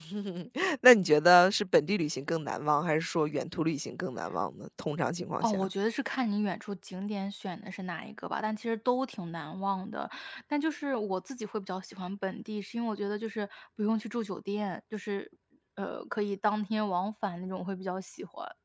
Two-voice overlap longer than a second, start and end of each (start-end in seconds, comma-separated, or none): none